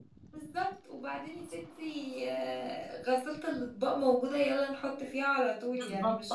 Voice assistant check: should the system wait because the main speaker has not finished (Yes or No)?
No